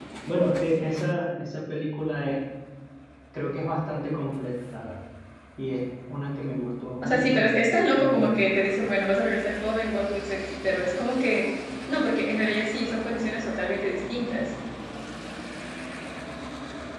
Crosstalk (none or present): present